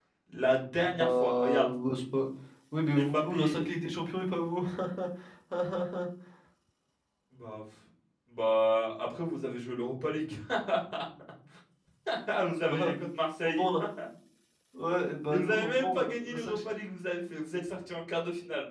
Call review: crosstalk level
present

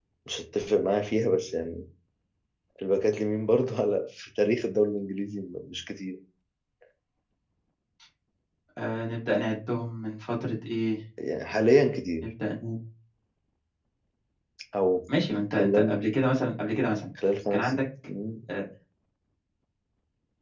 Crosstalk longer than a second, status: none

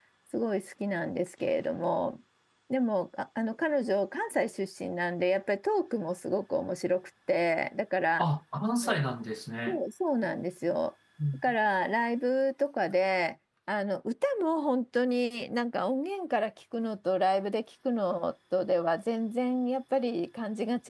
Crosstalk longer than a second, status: none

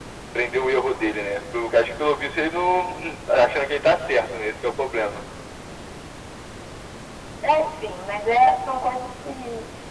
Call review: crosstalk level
none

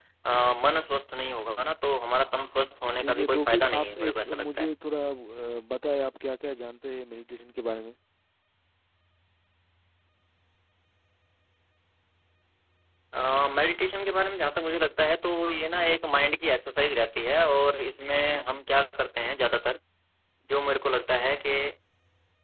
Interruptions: present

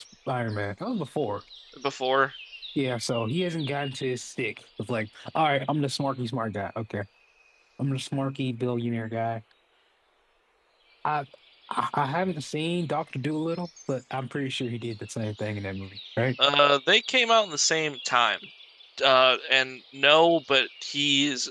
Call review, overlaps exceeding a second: none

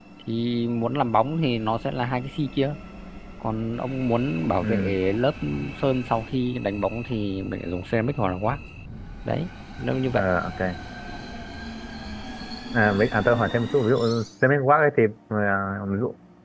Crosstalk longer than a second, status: none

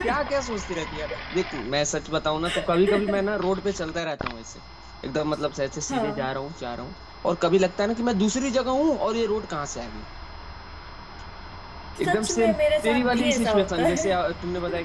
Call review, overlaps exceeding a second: present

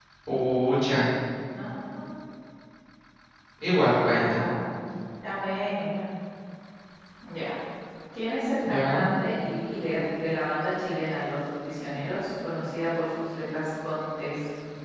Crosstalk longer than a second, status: none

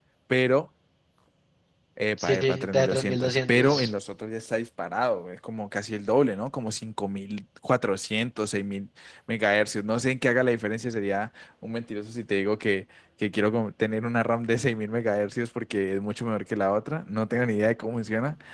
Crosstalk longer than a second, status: present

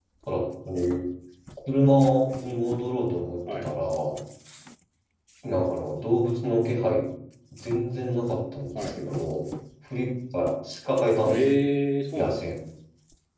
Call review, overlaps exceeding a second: none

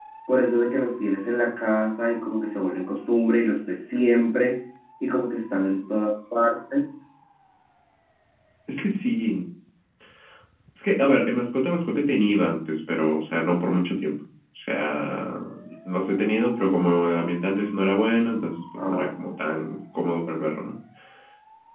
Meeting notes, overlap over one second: none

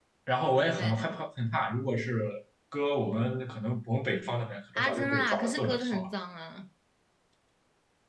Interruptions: present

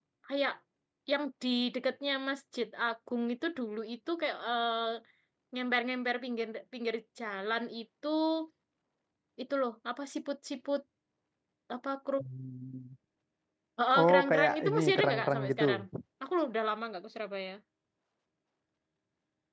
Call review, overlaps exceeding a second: present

